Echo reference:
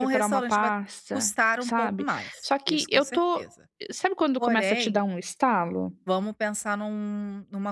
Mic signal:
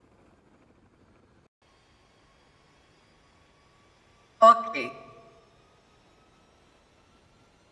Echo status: none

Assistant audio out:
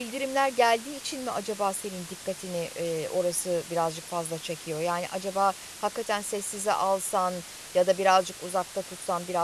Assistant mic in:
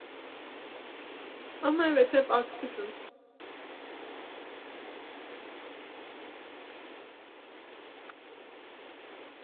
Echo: none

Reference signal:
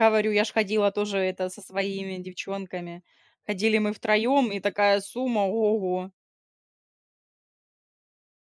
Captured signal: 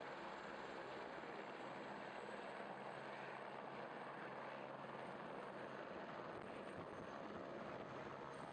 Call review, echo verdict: none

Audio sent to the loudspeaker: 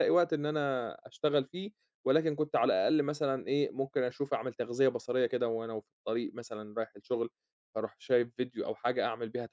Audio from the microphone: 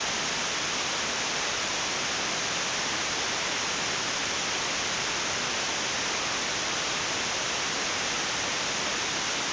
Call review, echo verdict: none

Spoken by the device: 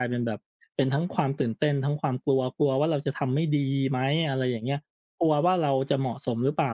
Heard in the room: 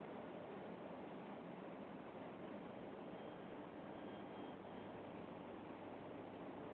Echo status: none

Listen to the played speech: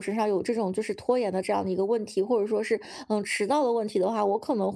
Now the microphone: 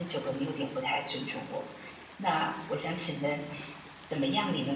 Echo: none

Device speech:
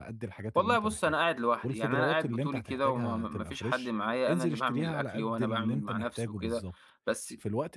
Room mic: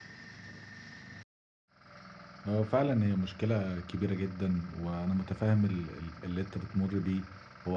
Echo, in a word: none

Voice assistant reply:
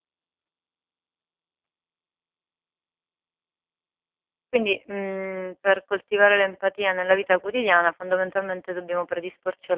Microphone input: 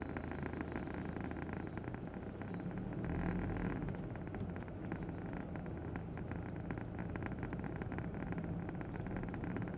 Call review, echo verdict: none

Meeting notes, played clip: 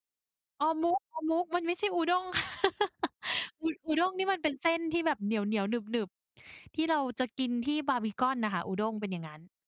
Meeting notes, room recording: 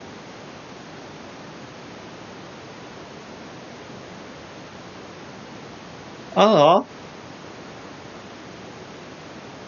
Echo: none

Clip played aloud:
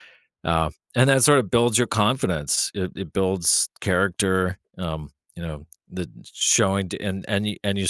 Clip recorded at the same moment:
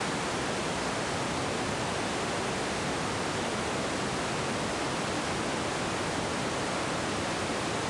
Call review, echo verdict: none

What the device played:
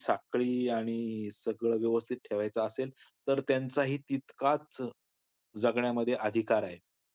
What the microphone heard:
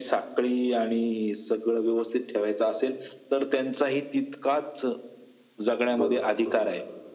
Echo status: present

